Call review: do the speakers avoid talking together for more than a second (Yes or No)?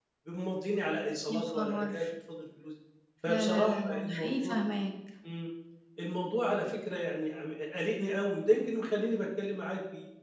No